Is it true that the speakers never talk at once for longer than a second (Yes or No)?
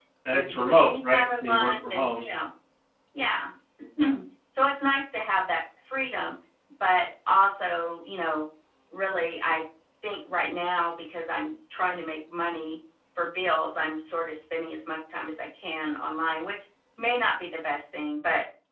No